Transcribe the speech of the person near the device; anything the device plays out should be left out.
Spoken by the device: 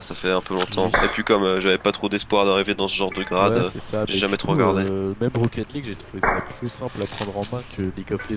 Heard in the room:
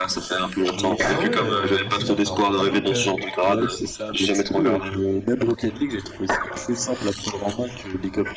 Ah ouais, c'est-à-dire que t'as un bon niveau quand même.

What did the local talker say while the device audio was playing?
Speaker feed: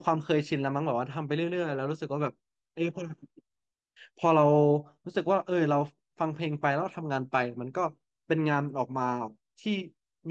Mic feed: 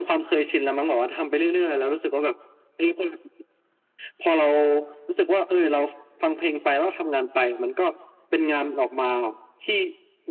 none

